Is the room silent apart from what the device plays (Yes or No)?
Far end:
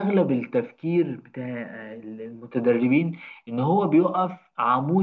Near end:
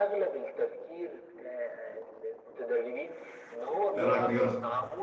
No